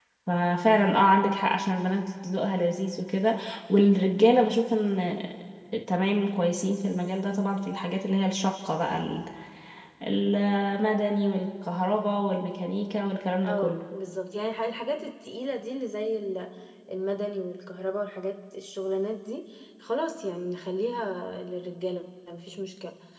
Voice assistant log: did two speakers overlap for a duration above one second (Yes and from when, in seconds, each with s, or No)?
No